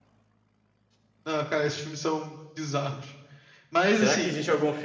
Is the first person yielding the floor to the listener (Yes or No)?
Yes